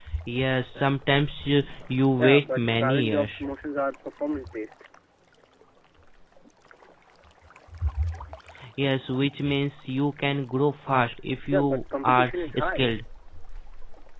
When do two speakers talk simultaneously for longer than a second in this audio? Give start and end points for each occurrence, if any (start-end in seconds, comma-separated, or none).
2.2-3.5, 11.5-12.9